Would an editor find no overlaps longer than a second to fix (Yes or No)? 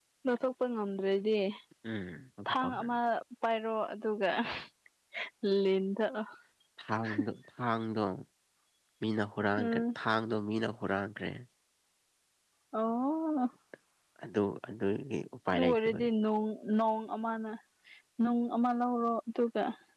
Yes